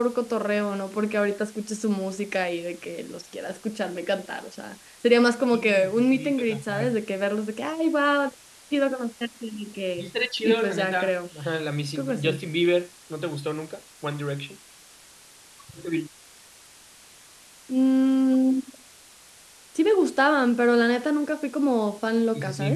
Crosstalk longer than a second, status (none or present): present